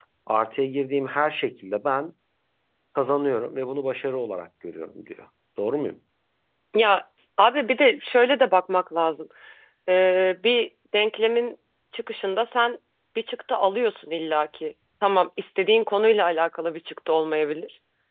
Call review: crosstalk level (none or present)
none